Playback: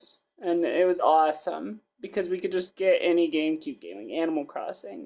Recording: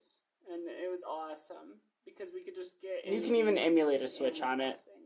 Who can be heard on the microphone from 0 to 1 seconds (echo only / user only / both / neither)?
echo only